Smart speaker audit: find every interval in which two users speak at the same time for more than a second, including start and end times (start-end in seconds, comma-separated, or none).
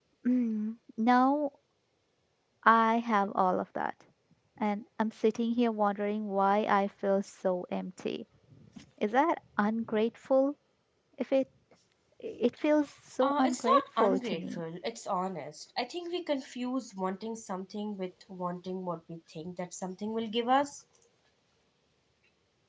13.2-14.6